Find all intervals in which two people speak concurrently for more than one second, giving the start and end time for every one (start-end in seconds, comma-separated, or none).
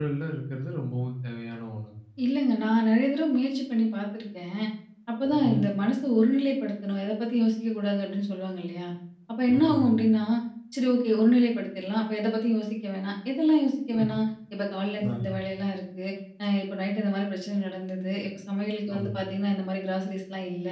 none